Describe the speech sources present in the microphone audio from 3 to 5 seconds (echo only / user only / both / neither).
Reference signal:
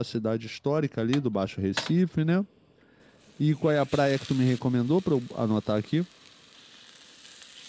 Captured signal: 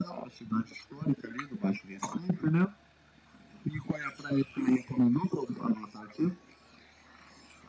echo only